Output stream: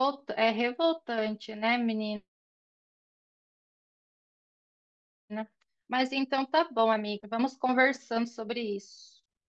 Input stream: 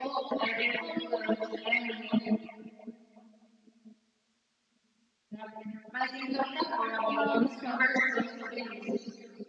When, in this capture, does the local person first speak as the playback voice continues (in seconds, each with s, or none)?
7.1 s